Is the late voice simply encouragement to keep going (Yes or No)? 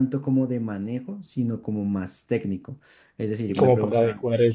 No